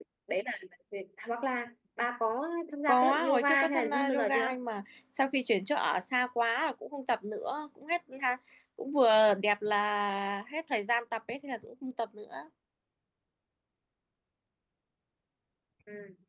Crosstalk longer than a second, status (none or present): present